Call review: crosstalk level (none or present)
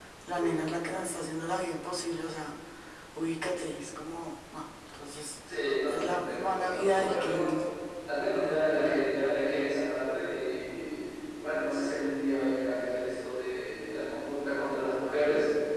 present